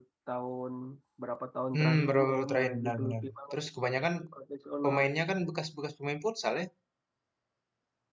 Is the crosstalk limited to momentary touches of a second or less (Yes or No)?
No